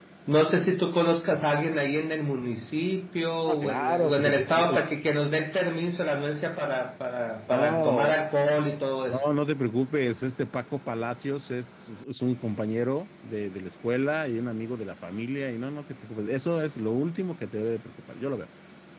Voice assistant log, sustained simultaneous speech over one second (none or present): present